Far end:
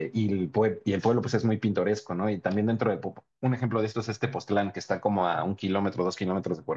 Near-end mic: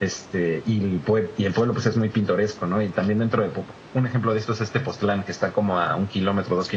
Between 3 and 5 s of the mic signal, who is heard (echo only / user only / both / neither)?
echo only